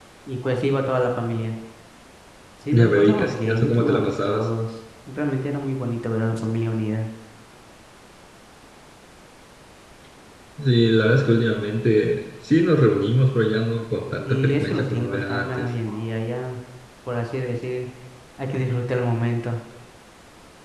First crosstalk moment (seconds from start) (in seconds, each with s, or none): 2.7 s